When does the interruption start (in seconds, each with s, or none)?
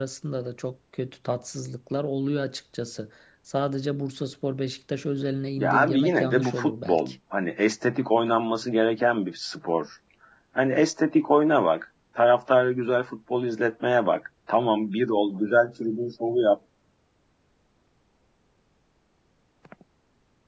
5.6 s